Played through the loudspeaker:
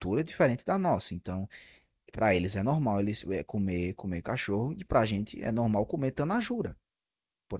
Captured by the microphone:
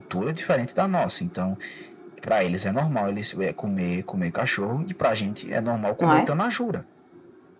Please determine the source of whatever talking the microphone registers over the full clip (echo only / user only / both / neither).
both